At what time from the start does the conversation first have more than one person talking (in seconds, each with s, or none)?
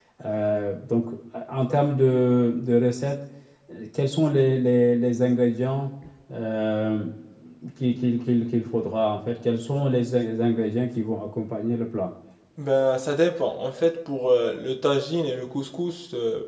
none